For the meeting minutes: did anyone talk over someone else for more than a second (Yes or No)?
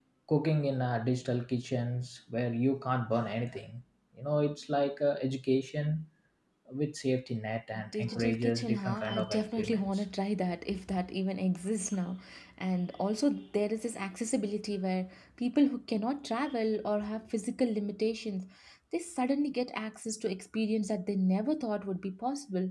Yes